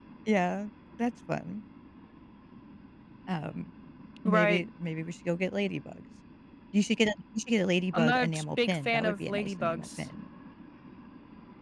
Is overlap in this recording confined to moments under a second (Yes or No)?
No